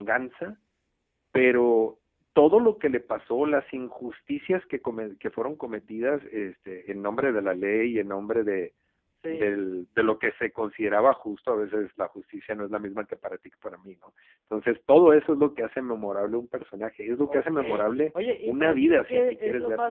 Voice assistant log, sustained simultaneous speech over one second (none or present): present